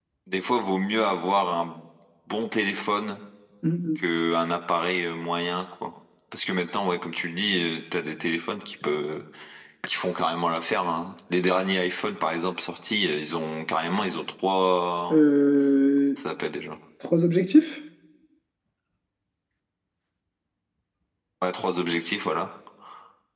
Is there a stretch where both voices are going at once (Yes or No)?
No